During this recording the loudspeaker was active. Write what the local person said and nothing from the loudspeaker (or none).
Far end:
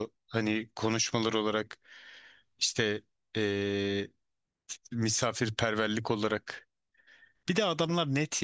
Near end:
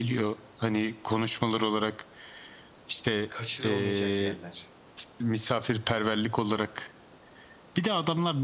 kaçırılmayacak yerler.